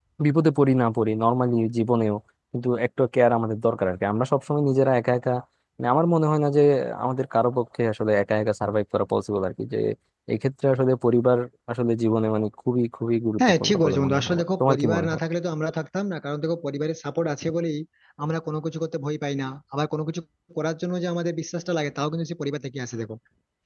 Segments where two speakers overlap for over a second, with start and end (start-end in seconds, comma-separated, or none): 13.4-15.2